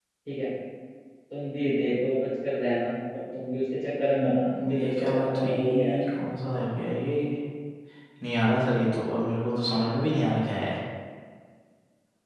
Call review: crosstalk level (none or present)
present